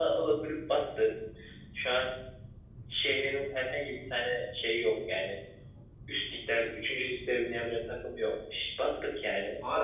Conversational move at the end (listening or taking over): taking over